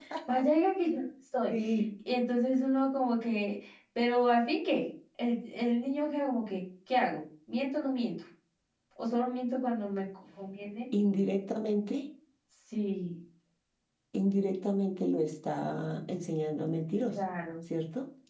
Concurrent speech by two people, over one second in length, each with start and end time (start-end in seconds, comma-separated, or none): none